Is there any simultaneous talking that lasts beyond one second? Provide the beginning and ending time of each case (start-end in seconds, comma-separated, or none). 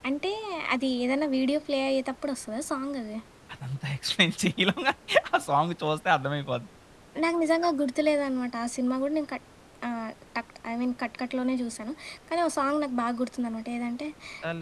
none